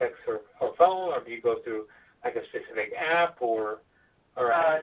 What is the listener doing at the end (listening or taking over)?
taking over